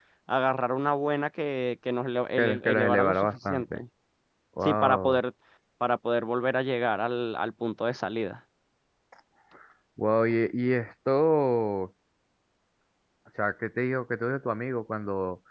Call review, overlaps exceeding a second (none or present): present